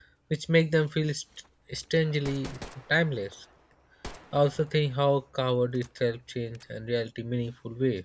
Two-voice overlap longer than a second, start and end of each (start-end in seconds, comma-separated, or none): none